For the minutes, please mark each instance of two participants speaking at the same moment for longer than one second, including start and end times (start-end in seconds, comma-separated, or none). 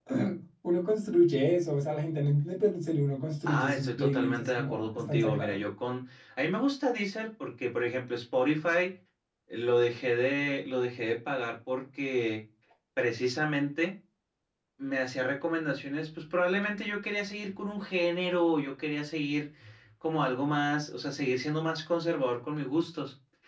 3.4-5.6